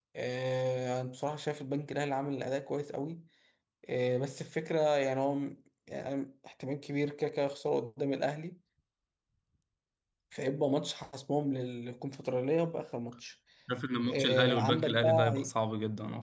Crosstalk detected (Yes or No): Yes